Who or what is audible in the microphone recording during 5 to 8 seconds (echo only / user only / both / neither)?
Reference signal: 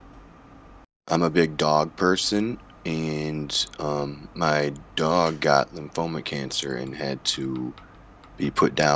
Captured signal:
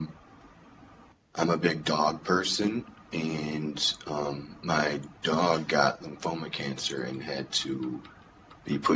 echo only